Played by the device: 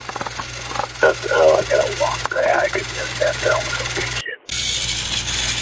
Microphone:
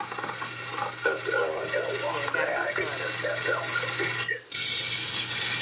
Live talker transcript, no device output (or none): yeah, I got to declutter.